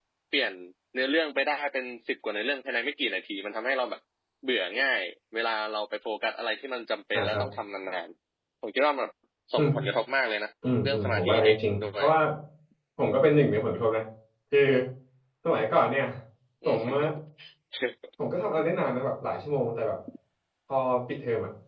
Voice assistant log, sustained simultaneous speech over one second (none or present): present